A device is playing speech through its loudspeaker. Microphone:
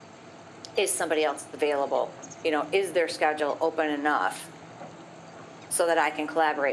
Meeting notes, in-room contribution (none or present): none